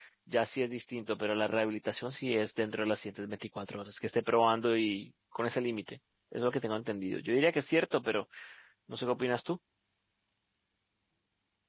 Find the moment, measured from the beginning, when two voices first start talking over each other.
none

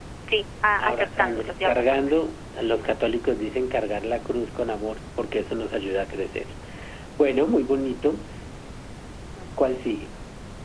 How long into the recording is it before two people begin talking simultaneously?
1 s

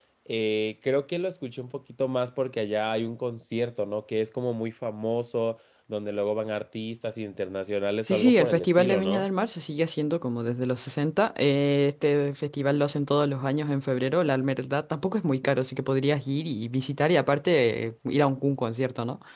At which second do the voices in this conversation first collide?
8 s

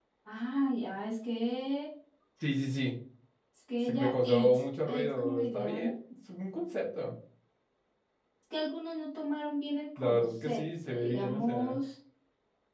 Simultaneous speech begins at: 4 s

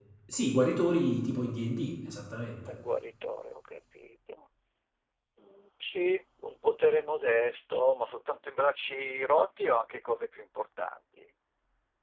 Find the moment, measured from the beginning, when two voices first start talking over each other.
none

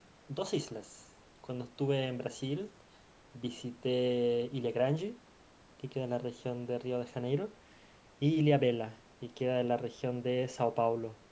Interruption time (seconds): none

